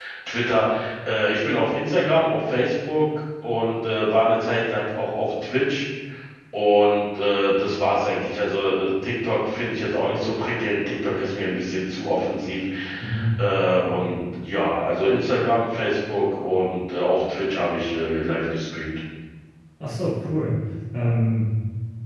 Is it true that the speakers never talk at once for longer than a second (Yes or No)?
Yes